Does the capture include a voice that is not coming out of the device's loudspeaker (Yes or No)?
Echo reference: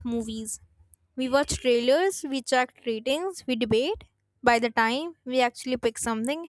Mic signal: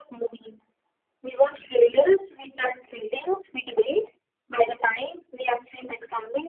No